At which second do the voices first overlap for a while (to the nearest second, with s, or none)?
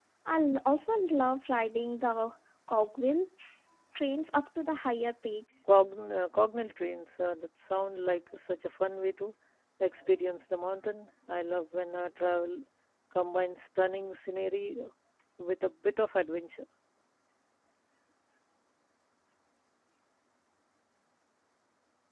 none